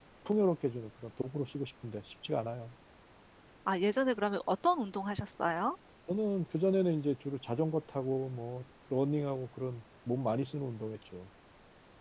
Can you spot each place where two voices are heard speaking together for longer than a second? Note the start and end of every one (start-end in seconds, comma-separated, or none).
none